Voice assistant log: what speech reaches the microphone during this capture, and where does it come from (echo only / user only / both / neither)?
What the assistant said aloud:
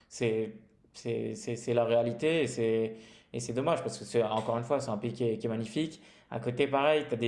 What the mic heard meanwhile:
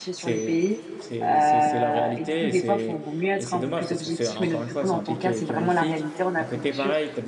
both